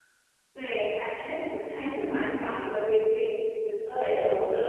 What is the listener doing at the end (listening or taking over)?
taking over